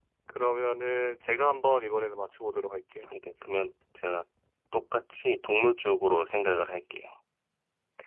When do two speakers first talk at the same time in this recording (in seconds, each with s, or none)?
none